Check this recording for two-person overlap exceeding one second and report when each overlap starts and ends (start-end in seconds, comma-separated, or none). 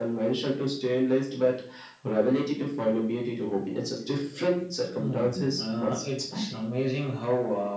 4.9-6.6